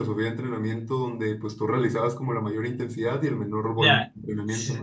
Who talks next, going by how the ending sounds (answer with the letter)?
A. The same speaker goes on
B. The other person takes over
B